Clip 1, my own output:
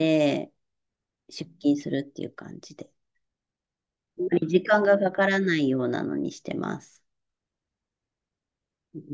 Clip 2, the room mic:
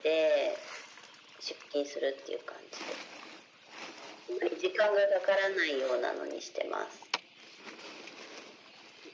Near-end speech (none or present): none